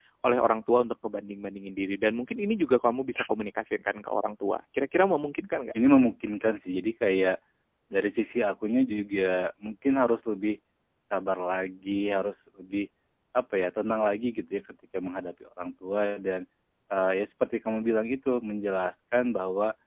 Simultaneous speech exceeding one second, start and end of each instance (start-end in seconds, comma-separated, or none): none